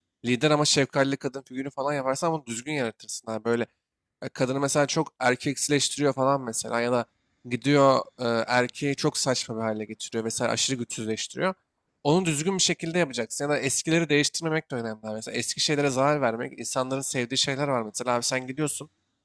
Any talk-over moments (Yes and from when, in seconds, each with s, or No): No